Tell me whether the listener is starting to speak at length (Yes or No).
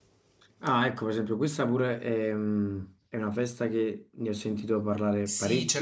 Yes